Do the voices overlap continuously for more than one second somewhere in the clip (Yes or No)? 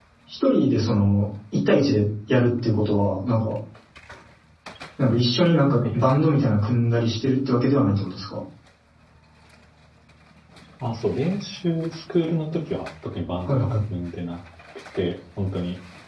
No